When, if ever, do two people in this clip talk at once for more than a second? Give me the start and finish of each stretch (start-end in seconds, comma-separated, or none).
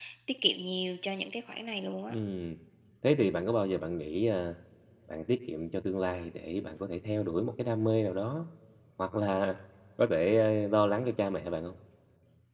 none